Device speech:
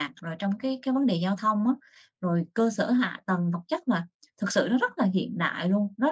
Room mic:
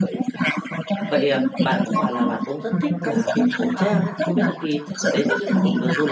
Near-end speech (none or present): present